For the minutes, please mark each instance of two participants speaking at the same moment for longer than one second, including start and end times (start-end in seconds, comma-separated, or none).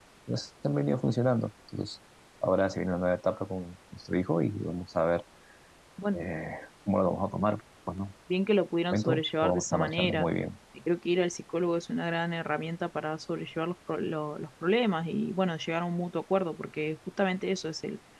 8.9-10.3